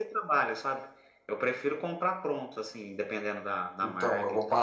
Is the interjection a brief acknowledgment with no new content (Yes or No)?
No